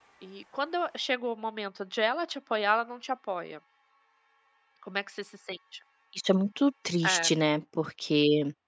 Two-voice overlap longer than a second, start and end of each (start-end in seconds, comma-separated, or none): none